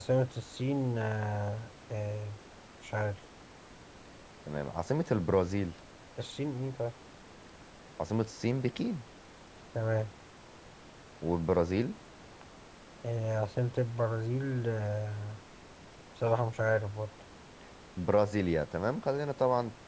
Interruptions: none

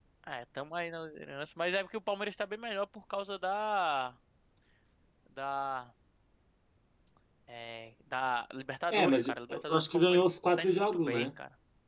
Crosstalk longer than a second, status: present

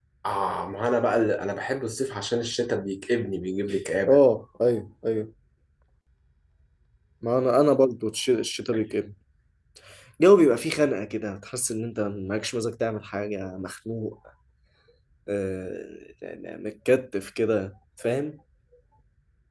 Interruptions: none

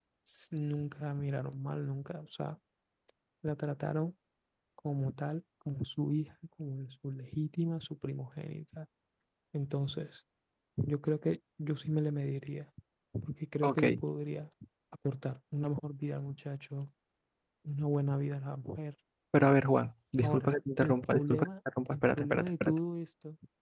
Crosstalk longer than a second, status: present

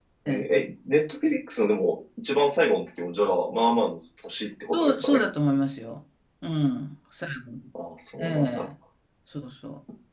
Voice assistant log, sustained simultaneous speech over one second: none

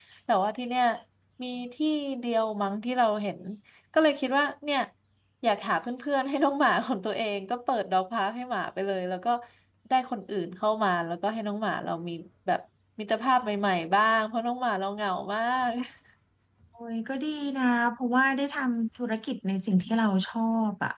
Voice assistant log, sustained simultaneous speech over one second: none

